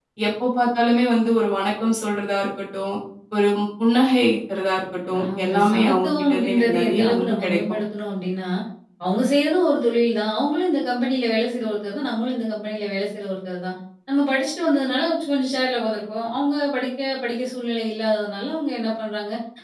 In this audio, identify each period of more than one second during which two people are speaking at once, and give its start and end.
5.1-7.6

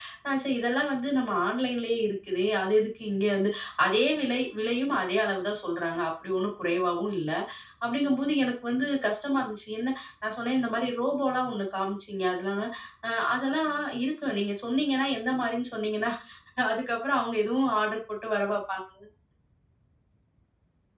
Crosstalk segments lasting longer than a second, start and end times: none

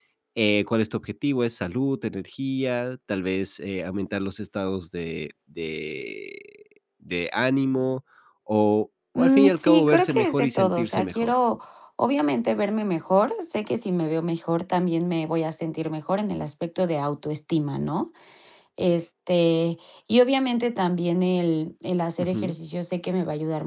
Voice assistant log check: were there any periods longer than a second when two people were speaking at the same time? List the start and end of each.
9.2-11.3

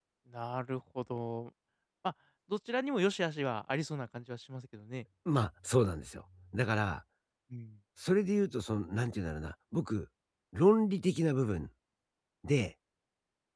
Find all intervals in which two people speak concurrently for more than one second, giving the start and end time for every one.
none

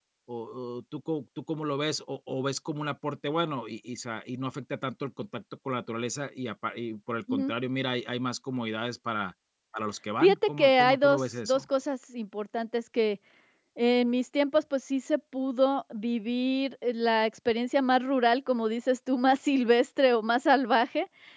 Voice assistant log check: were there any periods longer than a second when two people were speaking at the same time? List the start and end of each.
10.2-11.6

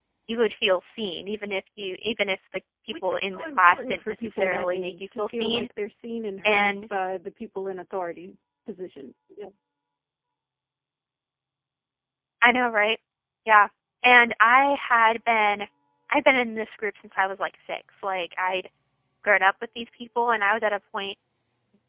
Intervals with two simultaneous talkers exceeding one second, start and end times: 3.0-5.7

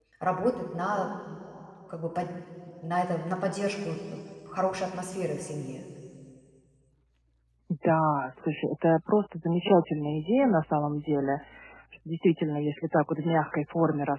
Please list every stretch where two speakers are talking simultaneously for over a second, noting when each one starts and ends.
none

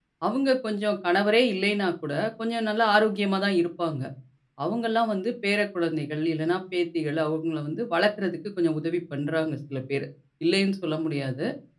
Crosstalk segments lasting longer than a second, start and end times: none

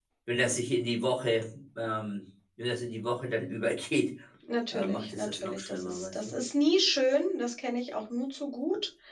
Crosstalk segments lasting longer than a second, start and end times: 4.7-6.1

